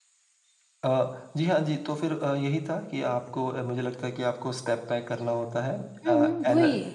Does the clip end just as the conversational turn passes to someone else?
Yes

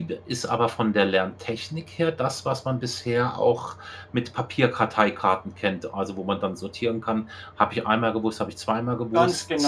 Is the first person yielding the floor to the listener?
Yes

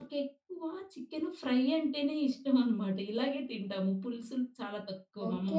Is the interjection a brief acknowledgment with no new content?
No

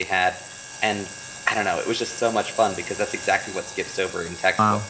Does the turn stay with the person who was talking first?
No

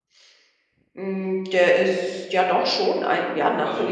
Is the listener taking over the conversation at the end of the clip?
Yes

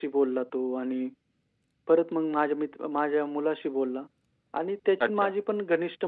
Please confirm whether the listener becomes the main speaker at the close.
No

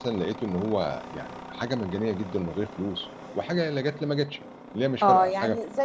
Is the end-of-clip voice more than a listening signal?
Yes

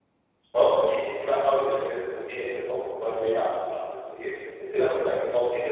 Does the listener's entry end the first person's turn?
No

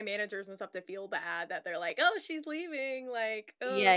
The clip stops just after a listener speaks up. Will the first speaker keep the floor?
No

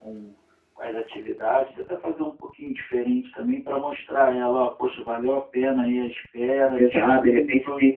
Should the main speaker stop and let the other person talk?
Yes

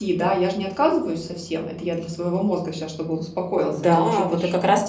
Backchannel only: No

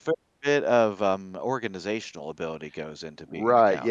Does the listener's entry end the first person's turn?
Yes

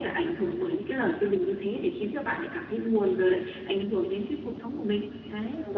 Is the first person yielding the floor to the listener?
Yes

